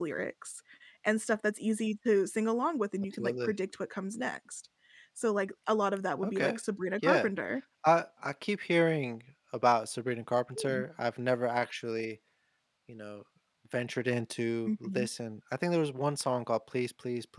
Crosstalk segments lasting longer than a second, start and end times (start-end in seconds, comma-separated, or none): none